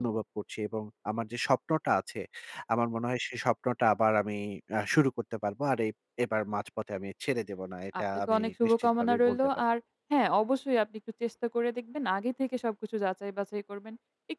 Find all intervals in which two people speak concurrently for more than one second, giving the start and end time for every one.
8.0-9.4

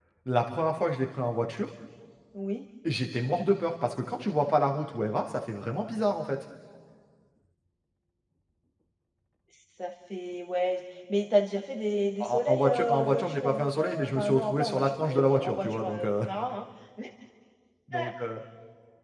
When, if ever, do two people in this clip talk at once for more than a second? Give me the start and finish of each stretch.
12.2-16.1

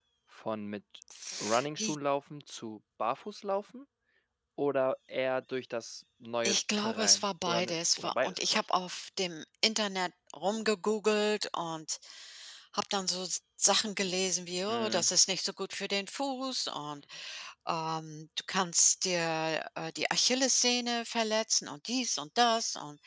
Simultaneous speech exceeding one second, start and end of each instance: 6.4-8.6

